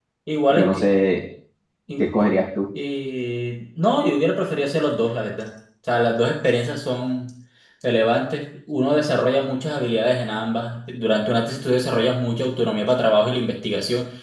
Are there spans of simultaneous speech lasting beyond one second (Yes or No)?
No